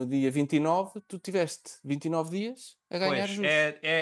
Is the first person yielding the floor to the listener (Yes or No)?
Yes